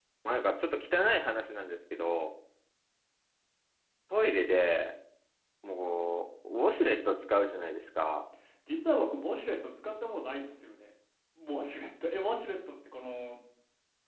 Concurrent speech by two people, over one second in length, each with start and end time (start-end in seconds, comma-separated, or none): none